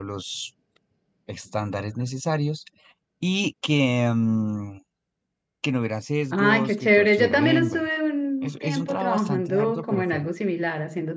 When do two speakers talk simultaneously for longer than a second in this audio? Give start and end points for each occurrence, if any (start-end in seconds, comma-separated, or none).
6.3-7.9, 8.4-10.3